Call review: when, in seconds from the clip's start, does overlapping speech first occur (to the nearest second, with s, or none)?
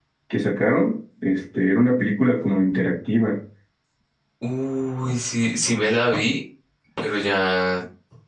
none